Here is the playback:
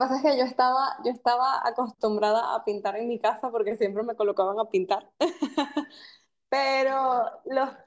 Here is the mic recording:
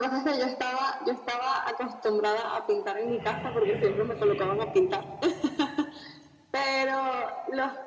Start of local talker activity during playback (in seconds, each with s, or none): 3.0 s